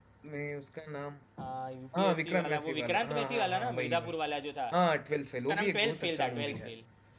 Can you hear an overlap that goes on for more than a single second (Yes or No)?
Yes